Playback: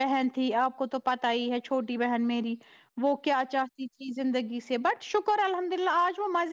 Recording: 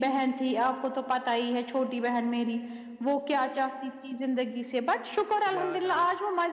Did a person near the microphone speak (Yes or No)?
Yes